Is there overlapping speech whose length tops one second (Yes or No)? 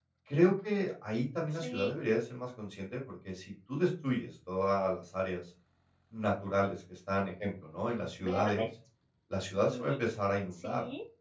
No